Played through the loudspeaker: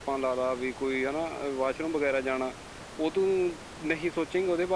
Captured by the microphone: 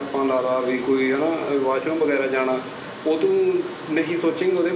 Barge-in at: none

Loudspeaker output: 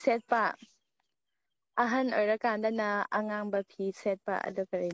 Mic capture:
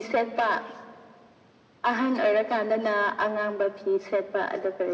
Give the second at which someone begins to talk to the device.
none

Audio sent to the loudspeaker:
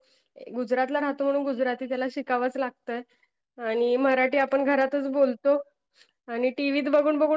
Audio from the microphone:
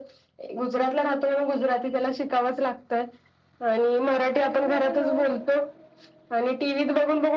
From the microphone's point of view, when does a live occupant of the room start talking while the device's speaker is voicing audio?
4.1 s

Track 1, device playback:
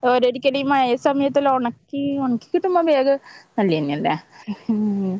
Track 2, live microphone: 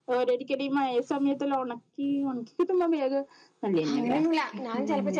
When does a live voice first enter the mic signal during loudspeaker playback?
3.9 s

